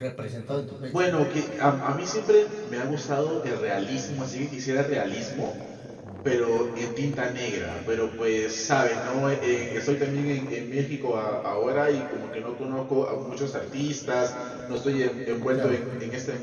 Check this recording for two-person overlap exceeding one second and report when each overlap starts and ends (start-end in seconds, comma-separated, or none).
none